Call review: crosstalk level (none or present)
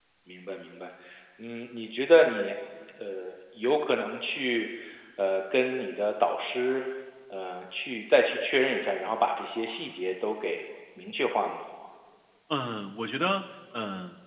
none